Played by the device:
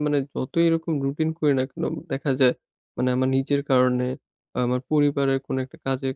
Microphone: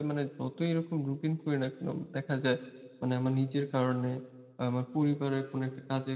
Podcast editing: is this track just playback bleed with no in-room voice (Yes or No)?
Yes